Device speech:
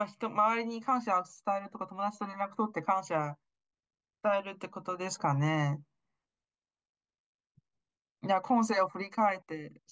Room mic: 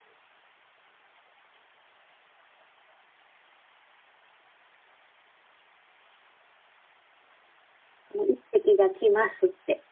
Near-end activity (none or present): present